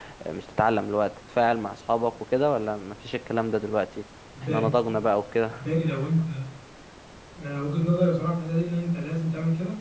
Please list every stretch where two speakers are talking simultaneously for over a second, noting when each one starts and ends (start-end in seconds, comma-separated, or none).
none